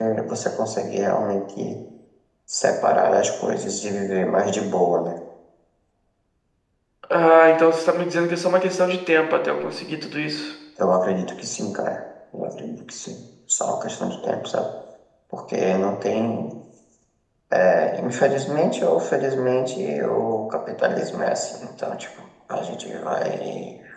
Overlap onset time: none

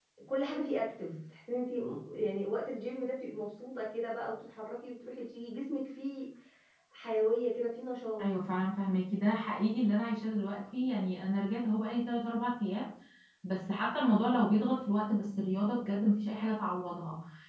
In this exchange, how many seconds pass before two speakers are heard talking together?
none

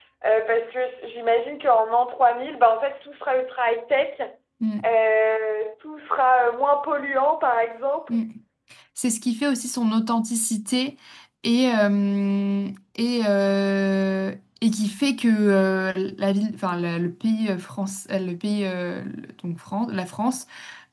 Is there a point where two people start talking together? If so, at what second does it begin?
none

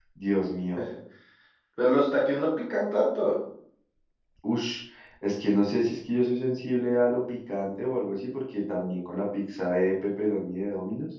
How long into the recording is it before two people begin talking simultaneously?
none

